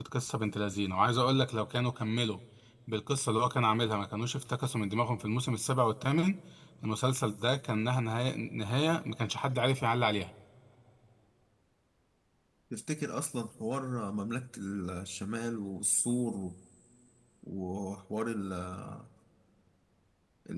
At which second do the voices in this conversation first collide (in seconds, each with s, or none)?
none